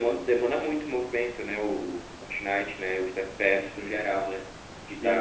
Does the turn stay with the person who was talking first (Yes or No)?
Yes